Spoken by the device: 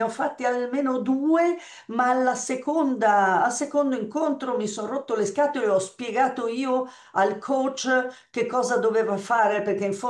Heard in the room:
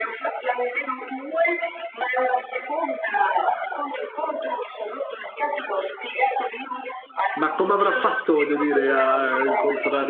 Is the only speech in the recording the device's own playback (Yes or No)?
No